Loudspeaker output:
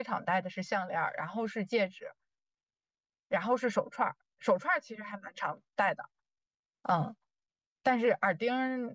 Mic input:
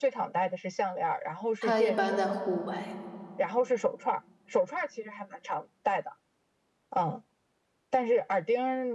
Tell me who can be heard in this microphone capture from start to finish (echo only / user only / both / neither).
both